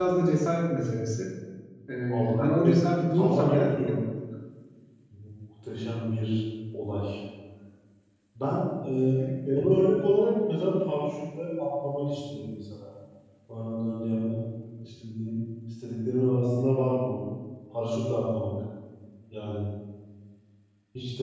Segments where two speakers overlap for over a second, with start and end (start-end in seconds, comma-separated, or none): 2.1-3.7